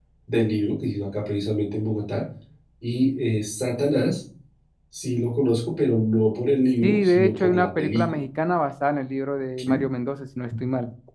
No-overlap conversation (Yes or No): No